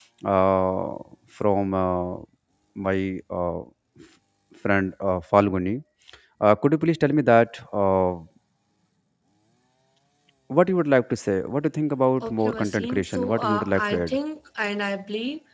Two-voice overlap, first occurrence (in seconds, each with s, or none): 12.2 s